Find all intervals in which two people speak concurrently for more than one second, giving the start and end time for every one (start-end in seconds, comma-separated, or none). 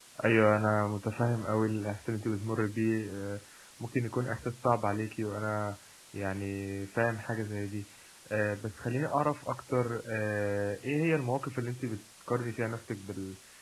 none